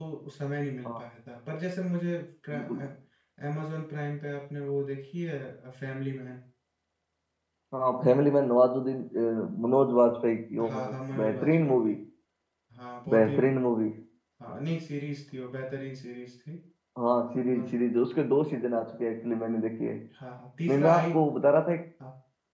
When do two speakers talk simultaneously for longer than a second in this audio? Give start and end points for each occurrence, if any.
10.7-11.9

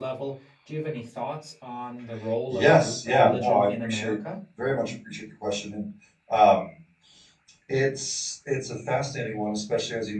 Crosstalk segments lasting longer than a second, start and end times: 2.5-4.2

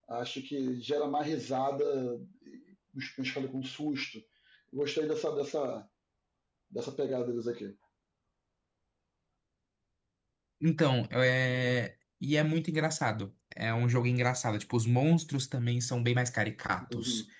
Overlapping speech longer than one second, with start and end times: none

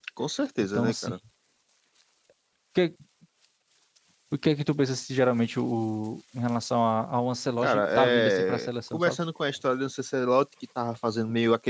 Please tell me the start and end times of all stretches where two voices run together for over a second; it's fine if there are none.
7.6-9.2

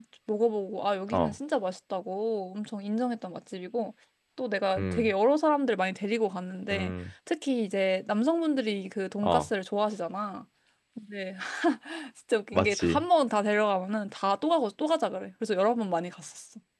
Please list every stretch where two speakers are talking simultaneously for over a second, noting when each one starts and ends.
none

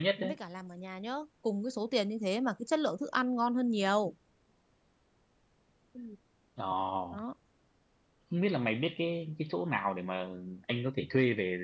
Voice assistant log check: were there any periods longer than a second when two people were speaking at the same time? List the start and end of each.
none

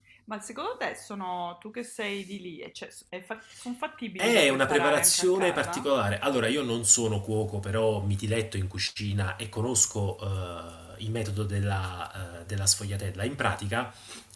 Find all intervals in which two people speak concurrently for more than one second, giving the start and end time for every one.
4.2-5.8

